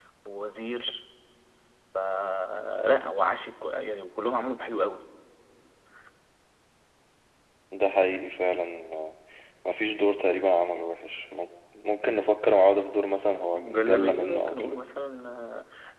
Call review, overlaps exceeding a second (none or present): present